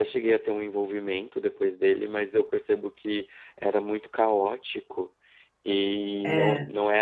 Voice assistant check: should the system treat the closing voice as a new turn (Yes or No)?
No